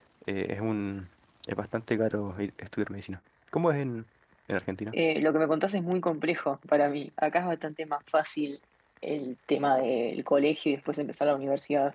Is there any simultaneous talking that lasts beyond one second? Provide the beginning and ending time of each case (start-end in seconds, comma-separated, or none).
none